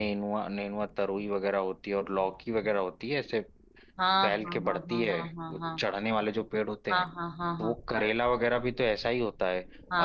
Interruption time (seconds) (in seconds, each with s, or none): 4.2 s